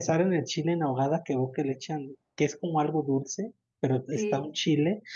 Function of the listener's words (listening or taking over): listening